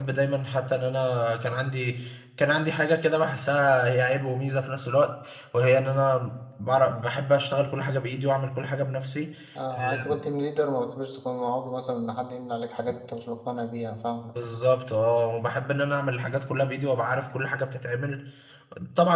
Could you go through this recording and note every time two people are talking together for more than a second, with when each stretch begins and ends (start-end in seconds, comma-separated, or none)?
none